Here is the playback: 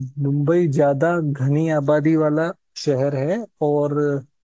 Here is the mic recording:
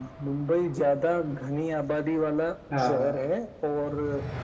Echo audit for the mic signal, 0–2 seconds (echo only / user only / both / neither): echo only